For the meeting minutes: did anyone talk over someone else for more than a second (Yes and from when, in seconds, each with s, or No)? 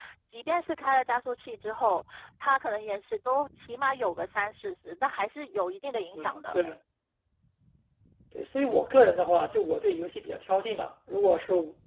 No